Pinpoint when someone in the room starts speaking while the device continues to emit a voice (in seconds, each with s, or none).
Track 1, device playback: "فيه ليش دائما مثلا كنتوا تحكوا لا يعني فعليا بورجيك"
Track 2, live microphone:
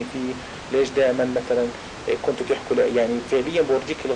none